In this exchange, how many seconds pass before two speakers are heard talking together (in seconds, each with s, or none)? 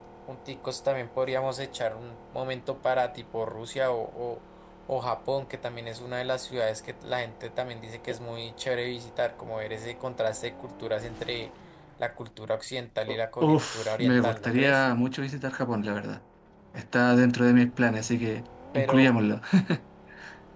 13.1 s